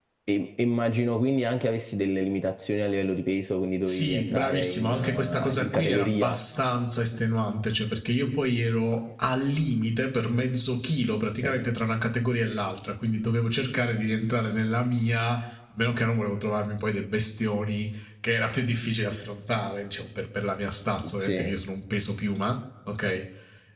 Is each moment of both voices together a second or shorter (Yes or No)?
No